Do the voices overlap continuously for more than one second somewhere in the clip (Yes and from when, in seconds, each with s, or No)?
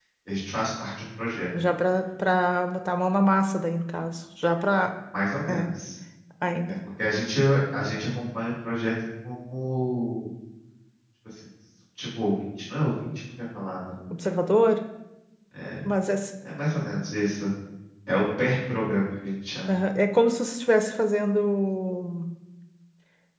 No